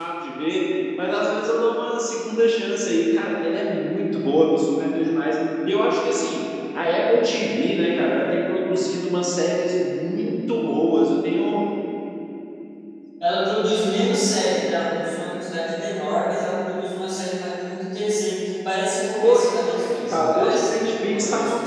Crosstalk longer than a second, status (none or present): present